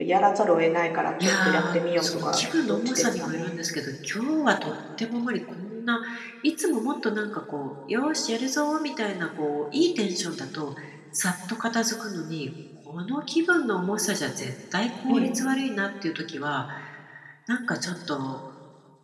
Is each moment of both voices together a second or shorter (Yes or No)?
No